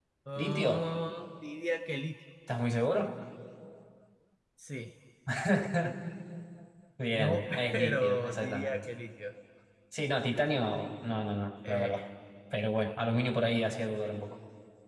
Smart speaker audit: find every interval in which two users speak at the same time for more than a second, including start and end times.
7.1-8.8

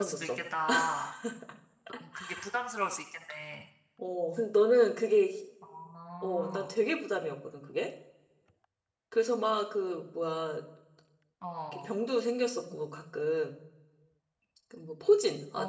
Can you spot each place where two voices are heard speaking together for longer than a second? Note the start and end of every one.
none

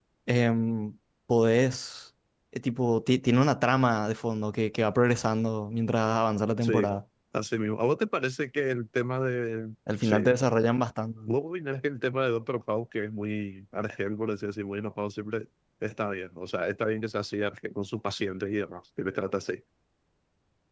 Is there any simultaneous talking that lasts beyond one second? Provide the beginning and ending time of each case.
none

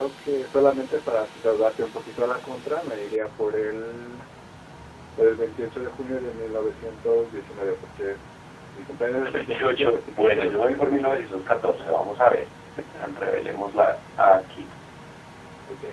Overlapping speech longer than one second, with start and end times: 9.2-11.2

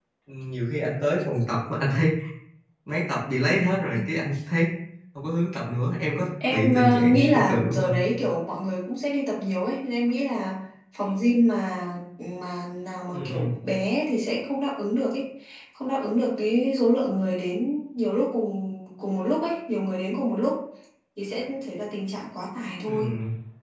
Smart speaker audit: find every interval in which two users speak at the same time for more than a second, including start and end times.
6.5-7.9

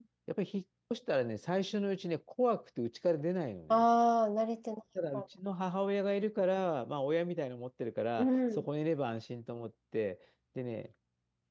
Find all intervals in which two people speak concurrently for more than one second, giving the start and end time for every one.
none

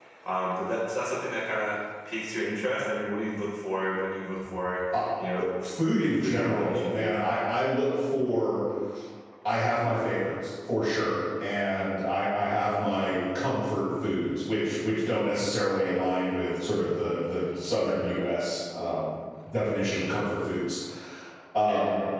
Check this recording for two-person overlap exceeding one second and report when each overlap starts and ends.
5.8-7.2

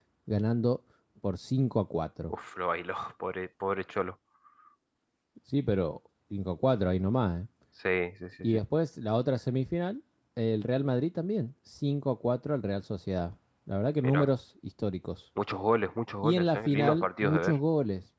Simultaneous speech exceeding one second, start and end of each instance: 16.2-17.6

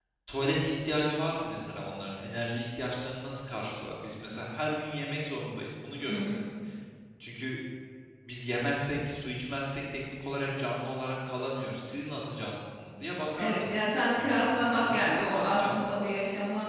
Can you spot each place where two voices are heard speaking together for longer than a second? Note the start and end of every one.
14.1-15.9

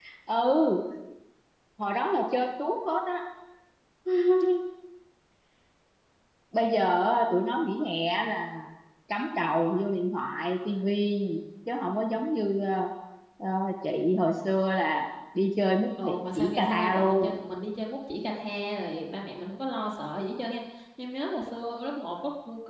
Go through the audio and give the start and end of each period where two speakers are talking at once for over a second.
16.0-17.4

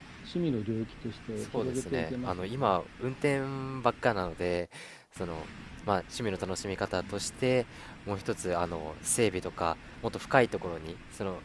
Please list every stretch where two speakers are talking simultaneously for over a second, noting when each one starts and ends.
1.4-2.7

